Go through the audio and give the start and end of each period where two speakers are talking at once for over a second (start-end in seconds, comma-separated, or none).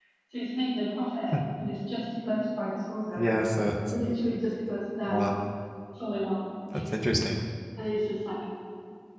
none